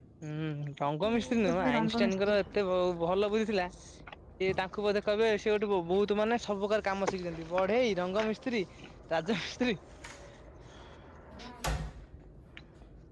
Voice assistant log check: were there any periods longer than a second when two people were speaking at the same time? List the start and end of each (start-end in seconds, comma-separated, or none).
1.0-2.6